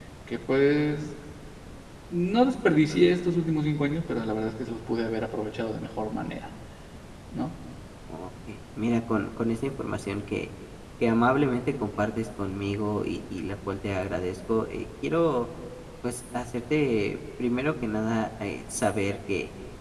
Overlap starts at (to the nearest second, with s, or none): none